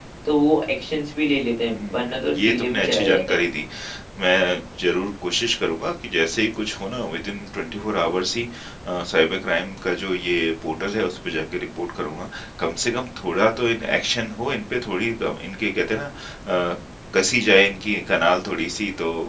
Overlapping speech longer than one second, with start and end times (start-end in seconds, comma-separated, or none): 1.7-3.4